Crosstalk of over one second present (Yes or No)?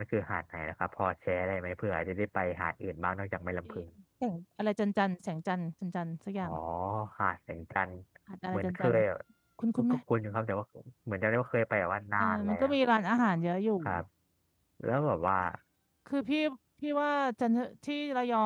No